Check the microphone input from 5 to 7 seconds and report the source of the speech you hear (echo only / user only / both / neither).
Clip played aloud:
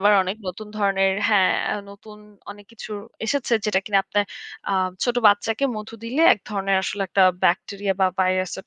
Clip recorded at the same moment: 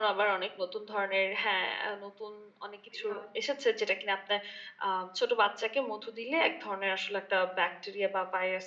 echo only